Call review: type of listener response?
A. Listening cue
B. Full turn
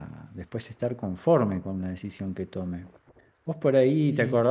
A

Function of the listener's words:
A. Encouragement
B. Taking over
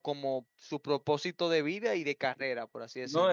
B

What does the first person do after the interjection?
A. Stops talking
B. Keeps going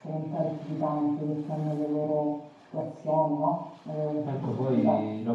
A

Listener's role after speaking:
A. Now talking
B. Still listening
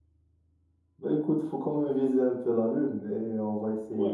A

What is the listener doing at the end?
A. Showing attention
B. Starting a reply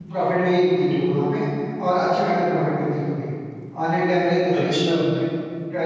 A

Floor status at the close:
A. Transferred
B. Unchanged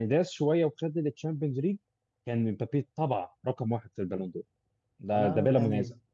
A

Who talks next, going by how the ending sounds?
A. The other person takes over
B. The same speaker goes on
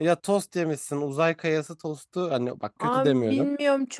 A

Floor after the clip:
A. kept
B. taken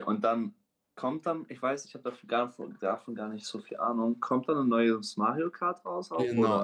B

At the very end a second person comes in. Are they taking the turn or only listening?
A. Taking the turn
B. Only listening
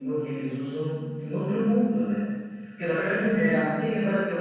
B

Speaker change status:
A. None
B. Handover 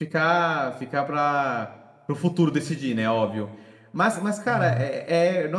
A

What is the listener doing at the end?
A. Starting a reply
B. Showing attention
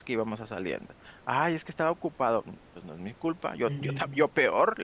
B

